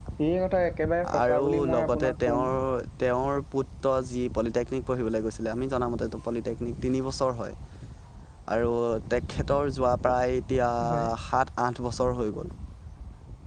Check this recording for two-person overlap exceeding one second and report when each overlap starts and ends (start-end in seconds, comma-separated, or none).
1.2-2.4